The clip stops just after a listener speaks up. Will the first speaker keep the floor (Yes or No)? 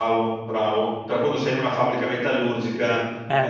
Yes